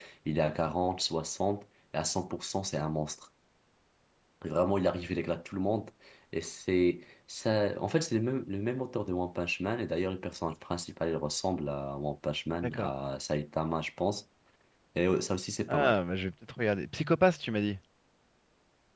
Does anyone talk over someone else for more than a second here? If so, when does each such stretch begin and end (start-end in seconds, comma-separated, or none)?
none